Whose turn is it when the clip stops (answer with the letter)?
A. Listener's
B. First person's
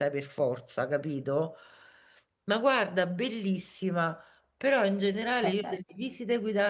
B